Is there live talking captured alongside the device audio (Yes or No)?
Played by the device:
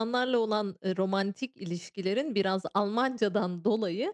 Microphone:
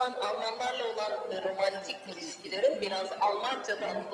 Yes